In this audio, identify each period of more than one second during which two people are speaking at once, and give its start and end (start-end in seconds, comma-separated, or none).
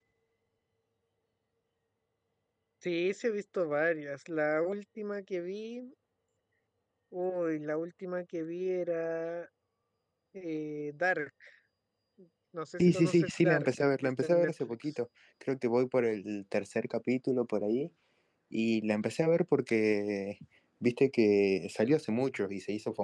12.8-14.8